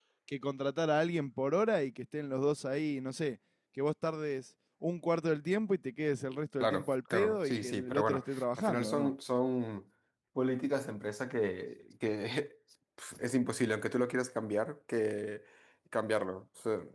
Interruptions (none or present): present